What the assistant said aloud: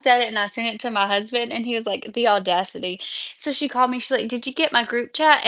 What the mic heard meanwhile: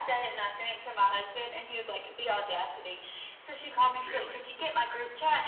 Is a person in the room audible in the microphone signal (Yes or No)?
Yes